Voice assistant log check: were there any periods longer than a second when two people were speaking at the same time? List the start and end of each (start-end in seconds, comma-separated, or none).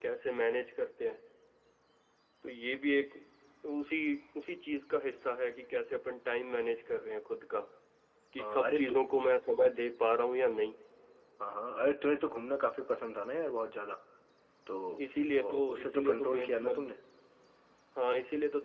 15.4-16.9